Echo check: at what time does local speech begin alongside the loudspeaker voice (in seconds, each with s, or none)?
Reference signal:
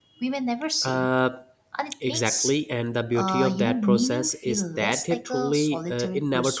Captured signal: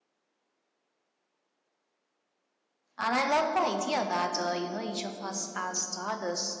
3.0 s